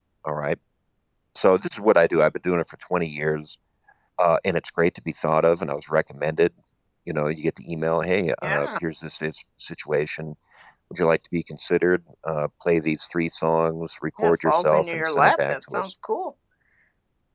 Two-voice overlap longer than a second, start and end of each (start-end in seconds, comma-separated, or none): 14.2-15.9